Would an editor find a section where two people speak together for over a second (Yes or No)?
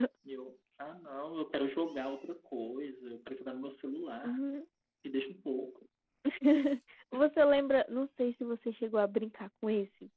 No